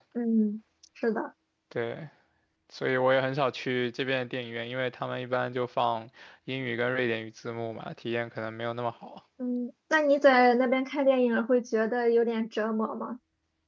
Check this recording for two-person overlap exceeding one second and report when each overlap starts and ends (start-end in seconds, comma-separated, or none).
none